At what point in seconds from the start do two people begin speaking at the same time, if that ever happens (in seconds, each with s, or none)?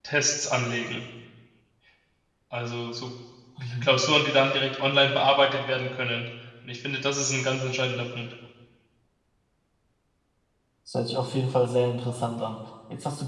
none